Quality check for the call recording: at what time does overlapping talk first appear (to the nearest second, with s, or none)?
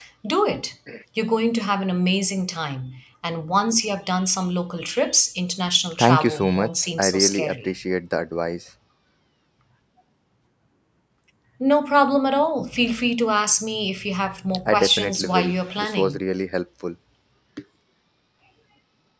6 s